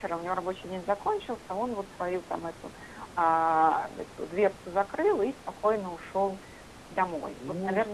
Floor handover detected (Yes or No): Yes